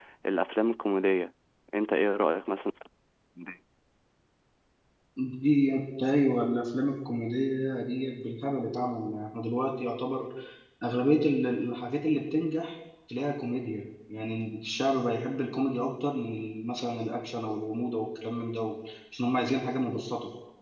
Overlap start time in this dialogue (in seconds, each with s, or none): none